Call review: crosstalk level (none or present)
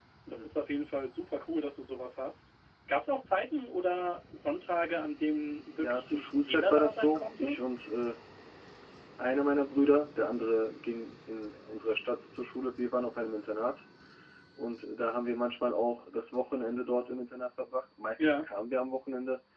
present